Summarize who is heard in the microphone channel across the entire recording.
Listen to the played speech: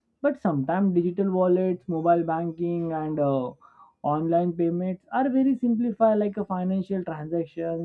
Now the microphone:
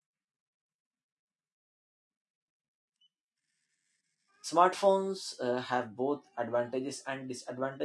user only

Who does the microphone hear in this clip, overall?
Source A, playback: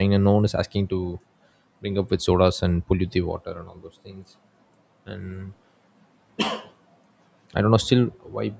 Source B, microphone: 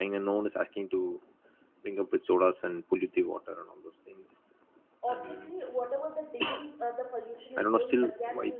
both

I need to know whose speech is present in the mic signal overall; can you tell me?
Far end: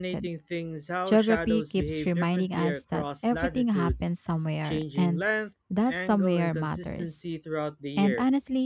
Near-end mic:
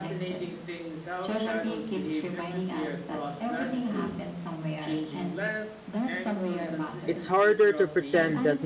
both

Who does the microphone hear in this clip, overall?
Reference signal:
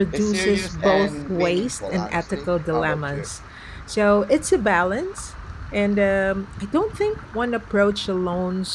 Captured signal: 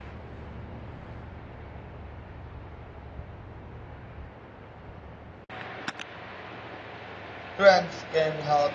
user only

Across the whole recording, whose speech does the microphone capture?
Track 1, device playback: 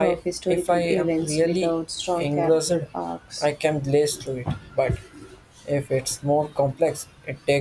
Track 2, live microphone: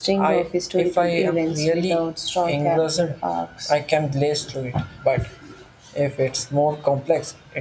echo only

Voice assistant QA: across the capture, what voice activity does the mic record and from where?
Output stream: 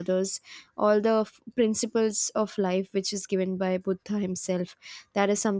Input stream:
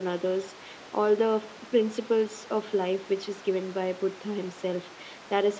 echo only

